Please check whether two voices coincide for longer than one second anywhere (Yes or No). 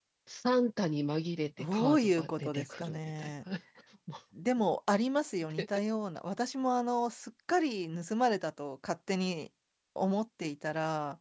Yes